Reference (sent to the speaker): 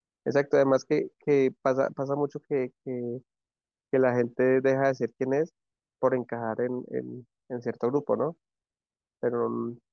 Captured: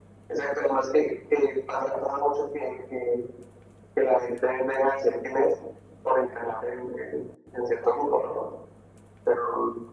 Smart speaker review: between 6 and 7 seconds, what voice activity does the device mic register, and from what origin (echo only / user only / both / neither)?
echo only